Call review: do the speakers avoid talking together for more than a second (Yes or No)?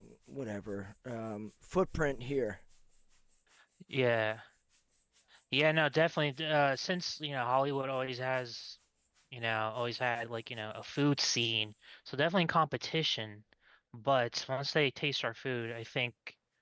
Yes